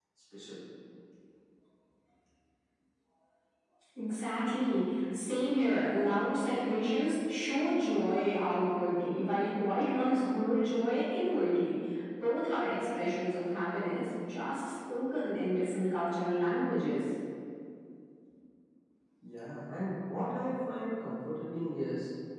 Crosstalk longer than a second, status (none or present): none